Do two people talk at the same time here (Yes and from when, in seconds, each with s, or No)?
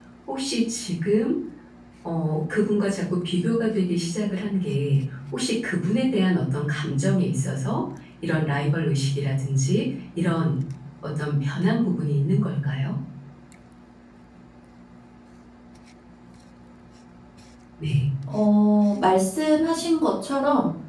No